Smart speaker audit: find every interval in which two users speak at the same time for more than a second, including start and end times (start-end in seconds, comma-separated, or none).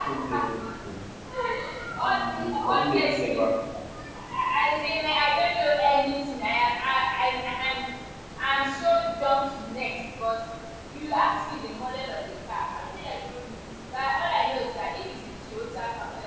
2.0-3.4